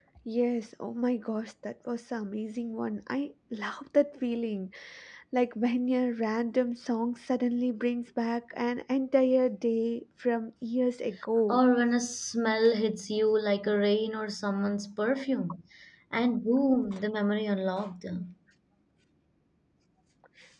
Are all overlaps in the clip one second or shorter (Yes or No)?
Yes